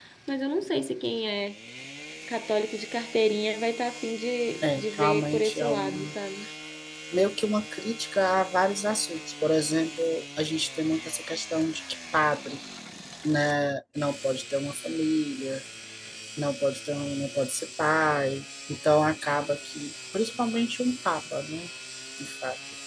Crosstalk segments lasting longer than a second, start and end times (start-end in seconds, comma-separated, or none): 4.6-6.1